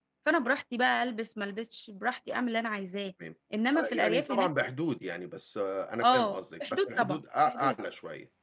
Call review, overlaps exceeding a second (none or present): present